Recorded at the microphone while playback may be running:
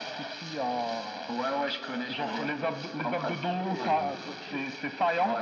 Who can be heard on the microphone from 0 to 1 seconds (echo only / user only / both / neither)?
echo only